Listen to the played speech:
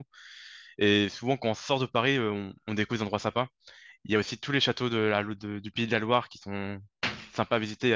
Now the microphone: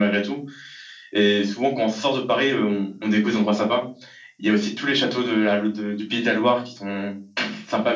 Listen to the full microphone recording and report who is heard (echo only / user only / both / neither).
echo only